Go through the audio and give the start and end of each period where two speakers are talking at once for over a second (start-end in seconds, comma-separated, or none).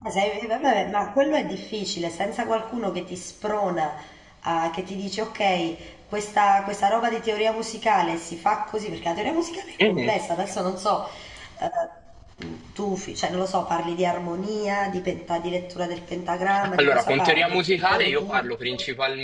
16.8-18.7